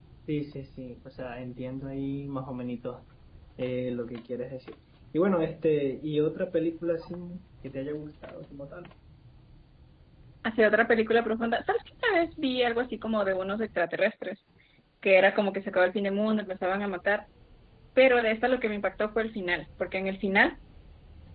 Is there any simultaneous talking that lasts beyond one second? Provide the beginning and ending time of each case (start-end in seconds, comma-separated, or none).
none